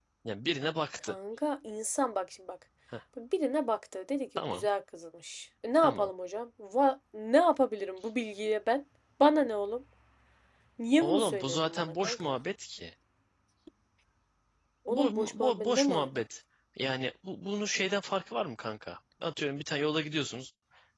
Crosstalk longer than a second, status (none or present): present